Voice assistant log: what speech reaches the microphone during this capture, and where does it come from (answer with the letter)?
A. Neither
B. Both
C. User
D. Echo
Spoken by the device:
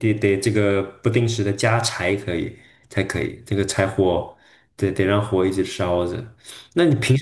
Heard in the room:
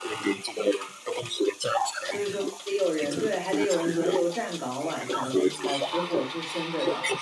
B